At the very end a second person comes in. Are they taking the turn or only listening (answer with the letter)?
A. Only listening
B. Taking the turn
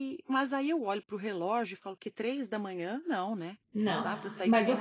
B